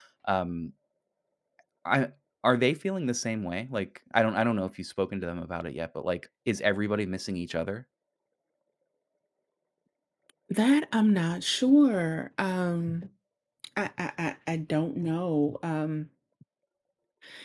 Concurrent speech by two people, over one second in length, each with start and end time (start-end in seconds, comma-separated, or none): none